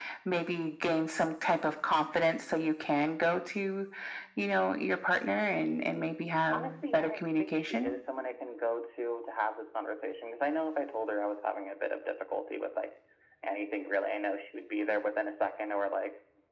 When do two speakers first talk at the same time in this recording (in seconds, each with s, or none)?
6.5 s